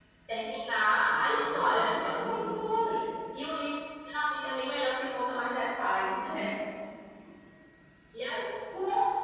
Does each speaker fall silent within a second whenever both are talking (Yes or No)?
No